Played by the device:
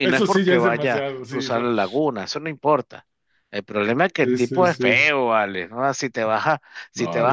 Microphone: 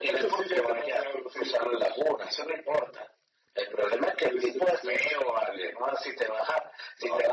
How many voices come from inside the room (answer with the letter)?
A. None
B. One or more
A